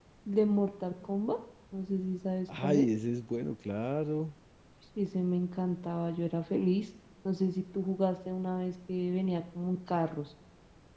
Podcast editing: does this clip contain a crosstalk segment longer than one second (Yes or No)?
No